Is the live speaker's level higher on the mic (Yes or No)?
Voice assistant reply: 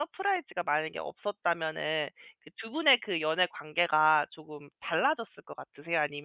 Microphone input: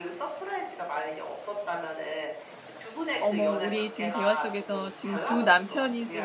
Yes